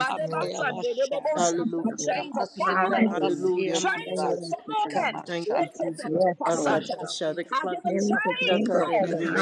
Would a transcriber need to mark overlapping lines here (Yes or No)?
Yes